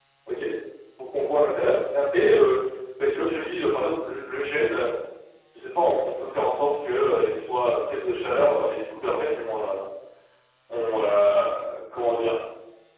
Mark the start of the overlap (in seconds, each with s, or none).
none